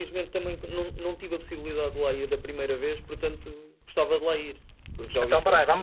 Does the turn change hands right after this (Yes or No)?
Yes